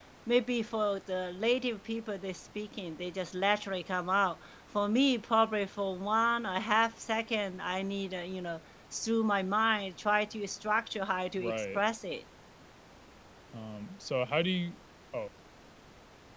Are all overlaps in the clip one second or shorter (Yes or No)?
Yes